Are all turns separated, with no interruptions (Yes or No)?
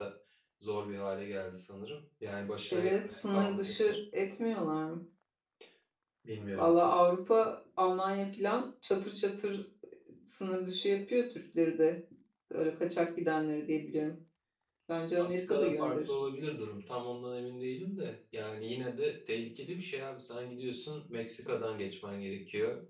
No